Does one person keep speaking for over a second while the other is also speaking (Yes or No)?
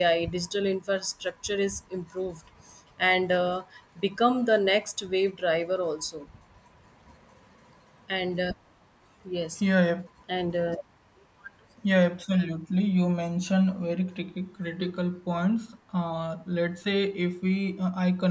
No